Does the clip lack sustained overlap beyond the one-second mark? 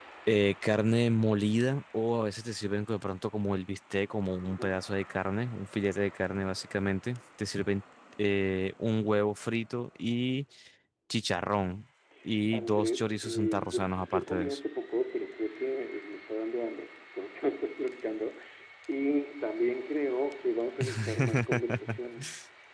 No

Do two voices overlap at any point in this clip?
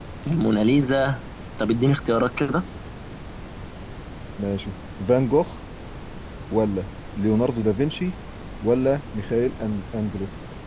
No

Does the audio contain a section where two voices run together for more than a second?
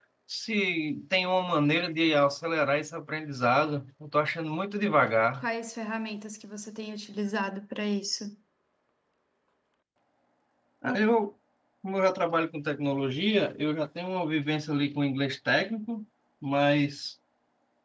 No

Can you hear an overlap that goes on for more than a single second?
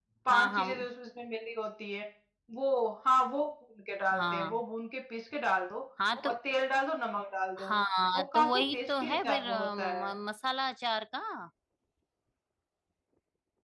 Yes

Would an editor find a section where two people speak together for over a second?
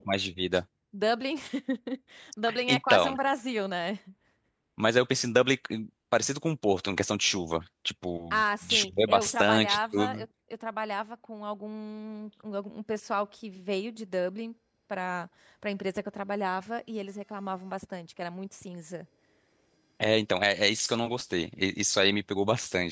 Yes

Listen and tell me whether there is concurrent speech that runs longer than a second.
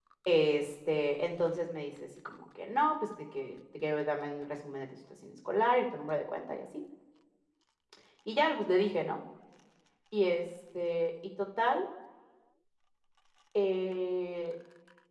No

